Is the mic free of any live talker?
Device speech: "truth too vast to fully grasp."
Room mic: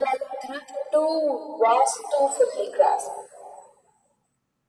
Yes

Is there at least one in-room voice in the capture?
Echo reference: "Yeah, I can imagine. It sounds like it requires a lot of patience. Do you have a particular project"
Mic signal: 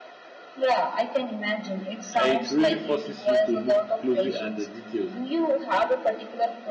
Yes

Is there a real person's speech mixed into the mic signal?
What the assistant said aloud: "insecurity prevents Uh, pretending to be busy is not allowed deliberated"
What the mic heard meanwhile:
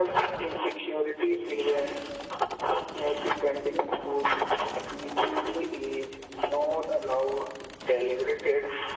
No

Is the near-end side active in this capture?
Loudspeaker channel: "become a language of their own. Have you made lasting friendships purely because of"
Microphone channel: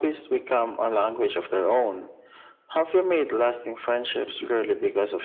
No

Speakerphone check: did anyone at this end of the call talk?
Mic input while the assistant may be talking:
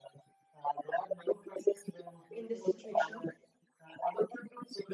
Yes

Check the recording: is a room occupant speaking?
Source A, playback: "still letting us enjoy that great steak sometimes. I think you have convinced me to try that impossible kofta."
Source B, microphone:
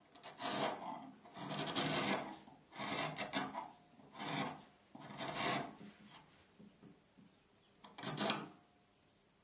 No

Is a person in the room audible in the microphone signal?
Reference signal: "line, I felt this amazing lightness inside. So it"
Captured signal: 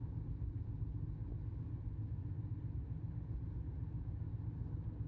No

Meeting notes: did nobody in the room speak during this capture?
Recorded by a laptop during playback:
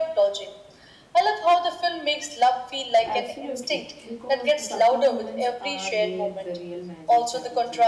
No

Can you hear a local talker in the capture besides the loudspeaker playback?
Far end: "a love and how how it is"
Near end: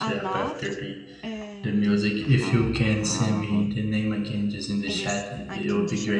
Yes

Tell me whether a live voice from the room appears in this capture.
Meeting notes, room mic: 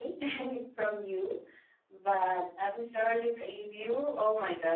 Yes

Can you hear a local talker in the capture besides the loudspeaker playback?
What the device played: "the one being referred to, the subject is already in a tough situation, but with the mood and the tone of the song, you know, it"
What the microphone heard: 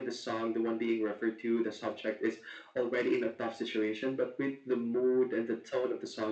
No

